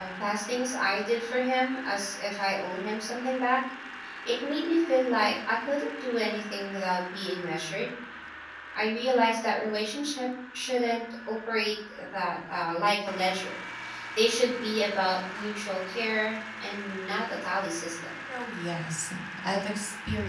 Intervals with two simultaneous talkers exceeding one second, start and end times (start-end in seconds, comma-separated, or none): none